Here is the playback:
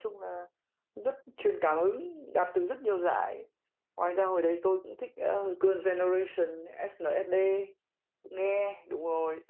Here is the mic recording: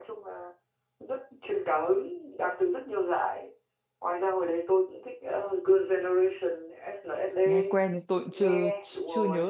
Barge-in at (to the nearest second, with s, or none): 7 s